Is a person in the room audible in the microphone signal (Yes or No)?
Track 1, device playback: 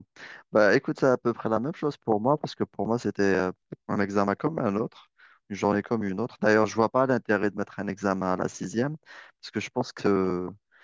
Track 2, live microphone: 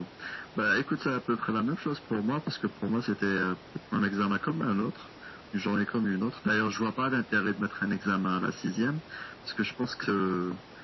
No